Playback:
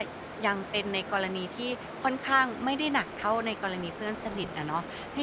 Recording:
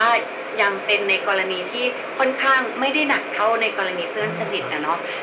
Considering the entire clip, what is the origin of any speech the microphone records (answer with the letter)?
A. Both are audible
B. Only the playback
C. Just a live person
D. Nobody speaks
A